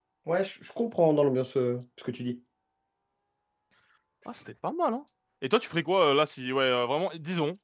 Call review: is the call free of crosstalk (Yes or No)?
Yes